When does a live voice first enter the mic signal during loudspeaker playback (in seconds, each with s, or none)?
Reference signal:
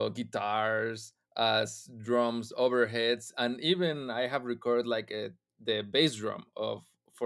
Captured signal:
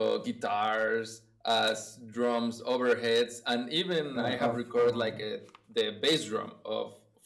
4.2 s